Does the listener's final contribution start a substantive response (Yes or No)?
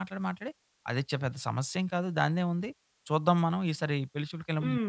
Yes